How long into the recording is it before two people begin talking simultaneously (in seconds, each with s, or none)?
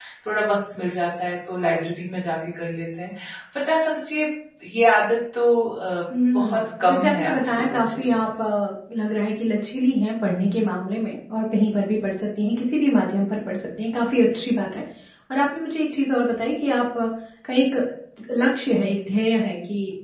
6.1 s